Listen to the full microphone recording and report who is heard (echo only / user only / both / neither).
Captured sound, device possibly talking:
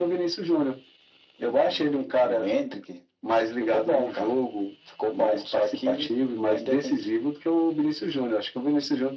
echo only